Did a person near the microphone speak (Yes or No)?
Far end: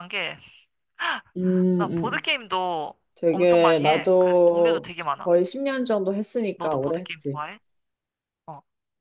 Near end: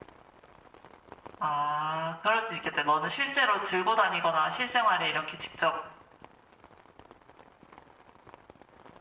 Yes